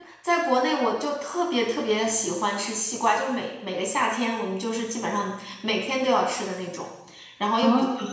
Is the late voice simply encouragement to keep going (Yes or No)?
Yes